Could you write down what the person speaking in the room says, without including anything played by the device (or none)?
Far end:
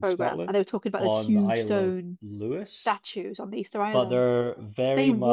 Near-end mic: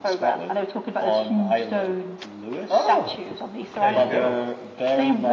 Oh, there you go.